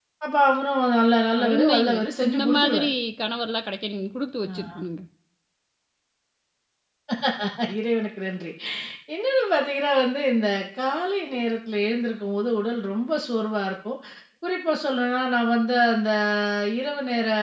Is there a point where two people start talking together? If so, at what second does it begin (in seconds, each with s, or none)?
1.4 s